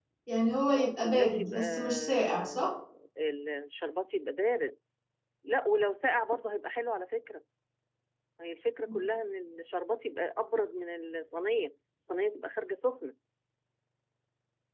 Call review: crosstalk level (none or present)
present